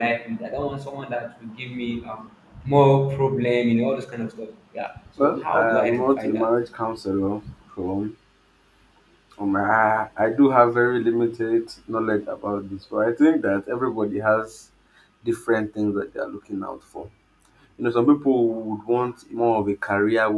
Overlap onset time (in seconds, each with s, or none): 5.2 s